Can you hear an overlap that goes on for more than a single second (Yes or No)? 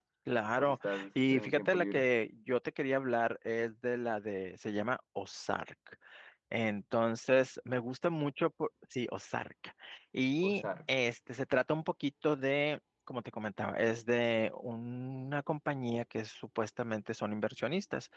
Yes